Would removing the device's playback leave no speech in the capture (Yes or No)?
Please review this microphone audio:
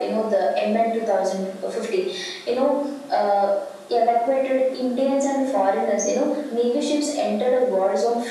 Yes